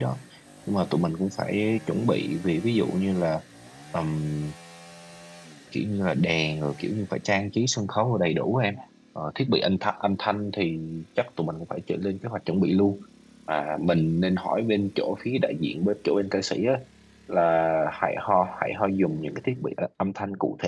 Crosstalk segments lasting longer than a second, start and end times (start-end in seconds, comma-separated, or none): none